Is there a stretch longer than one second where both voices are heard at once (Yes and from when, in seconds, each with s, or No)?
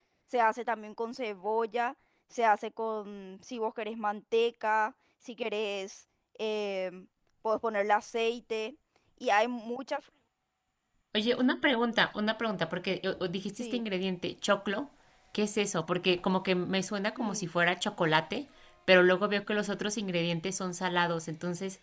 No